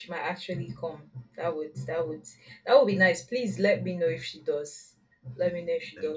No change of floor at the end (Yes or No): Yes